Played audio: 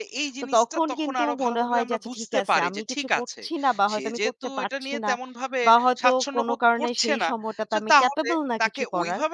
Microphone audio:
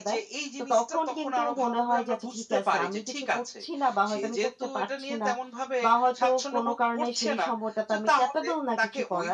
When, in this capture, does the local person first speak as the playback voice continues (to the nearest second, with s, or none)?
none